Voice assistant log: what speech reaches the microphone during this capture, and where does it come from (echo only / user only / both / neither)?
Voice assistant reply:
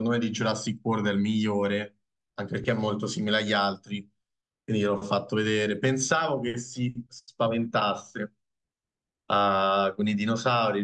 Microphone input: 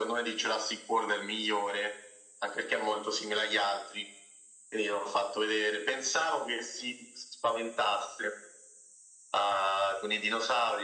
echo only